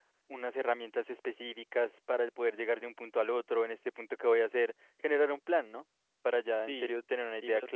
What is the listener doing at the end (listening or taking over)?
taking over